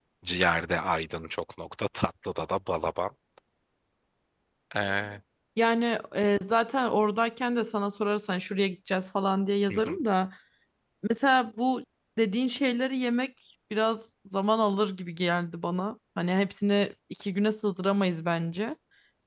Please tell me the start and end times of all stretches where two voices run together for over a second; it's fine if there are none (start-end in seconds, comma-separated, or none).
none